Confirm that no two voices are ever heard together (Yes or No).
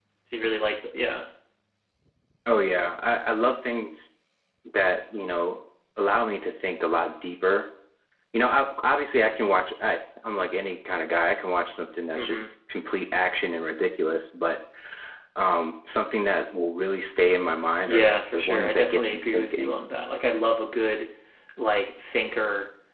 No